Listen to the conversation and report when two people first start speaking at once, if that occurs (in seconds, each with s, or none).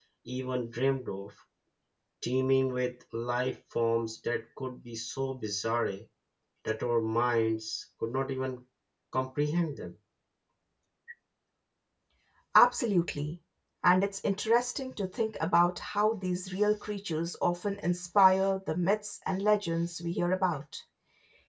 none